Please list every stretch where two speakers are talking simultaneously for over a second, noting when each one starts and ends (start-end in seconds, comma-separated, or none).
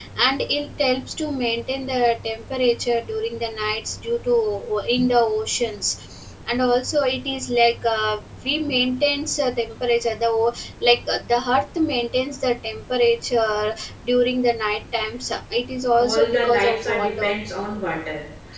16.0-17.3